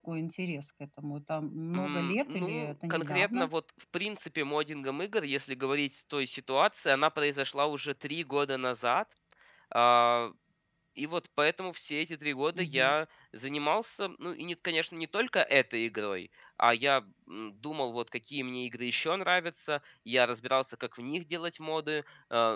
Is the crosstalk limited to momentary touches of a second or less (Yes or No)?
No